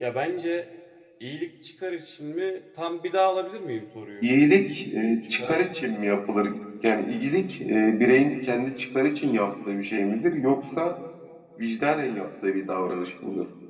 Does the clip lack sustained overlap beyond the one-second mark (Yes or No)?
Yes